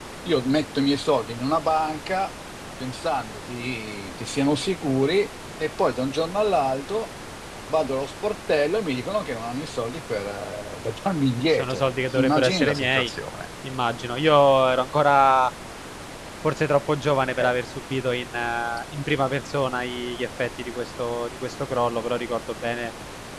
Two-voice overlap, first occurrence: 11.5 s

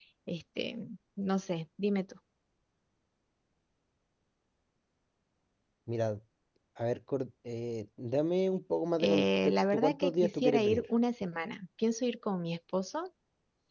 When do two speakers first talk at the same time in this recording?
9.0 s

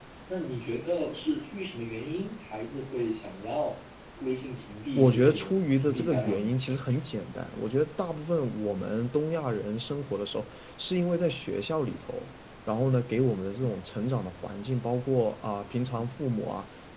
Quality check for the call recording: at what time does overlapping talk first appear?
5.0 s

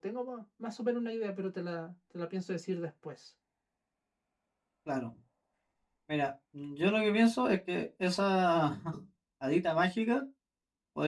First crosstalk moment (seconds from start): none

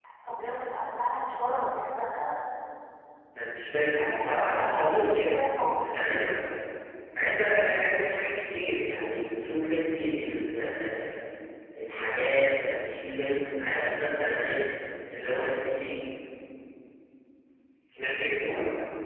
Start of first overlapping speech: 4.0 s

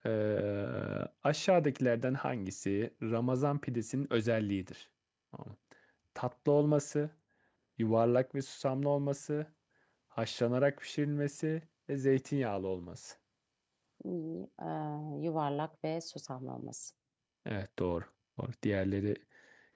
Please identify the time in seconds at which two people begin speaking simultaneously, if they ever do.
none

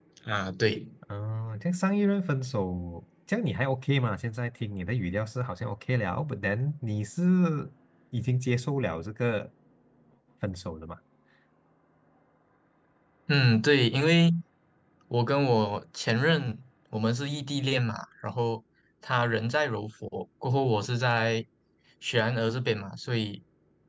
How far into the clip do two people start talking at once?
none

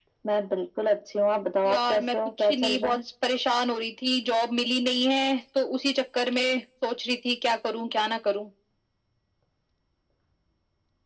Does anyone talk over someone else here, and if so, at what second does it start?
1.6 s

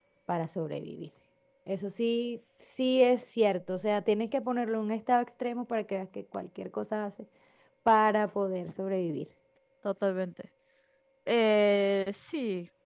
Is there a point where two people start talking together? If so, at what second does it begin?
none

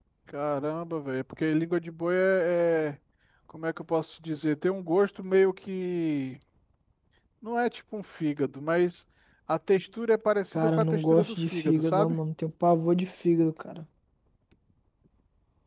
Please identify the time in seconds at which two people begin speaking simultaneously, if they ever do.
10.6 s

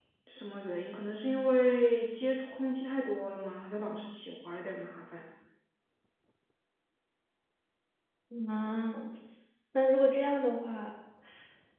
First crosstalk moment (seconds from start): none

